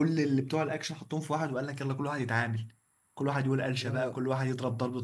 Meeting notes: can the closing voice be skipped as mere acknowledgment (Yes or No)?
Yes